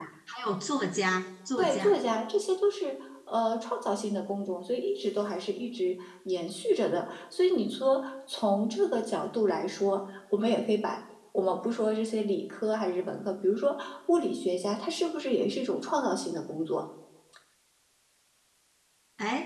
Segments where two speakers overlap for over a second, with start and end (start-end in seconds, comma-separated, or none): none